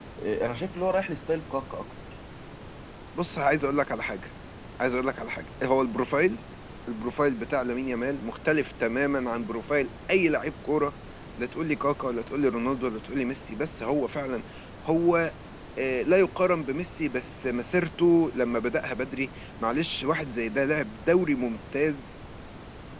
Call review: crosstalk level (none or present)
none